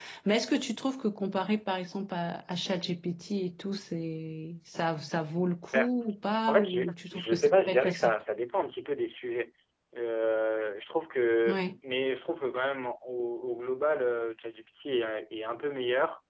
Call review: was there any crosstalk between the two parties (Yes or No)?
Yes